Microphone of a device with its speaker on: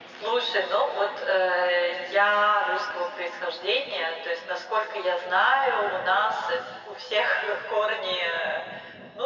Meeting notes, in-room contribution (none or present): none